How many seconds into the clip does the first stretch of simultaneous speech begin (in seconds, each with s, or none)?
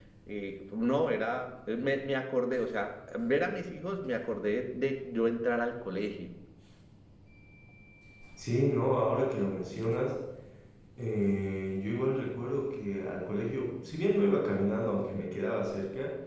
none